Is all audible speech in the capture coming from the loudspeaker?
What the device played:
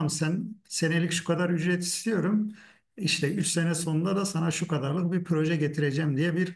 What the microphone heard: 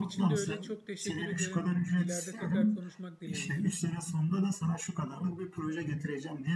No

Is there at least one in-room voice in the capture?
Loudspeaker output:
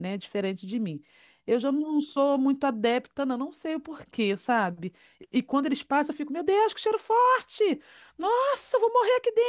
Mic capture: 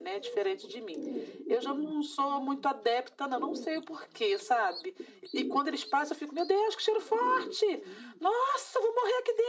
No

